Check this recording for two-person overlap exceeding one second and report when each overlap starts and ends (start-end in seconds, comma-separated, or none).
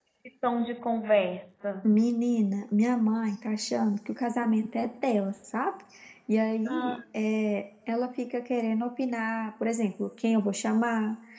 none